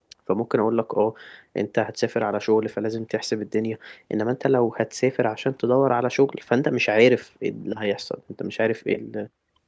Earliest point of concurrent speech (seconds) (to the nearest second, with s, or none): none